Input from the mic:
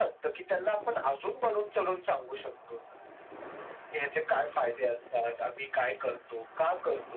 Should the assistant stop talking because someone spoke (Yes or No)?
No